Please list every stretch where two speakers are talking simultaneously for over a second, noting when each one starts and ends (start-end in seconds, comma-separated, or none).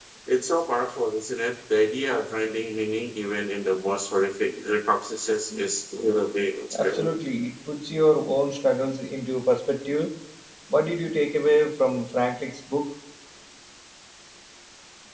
none